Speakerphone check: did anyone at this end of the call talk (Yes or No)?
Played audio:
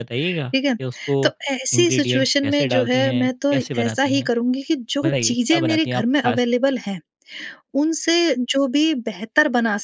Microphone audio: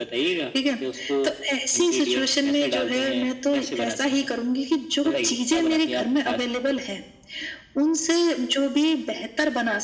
No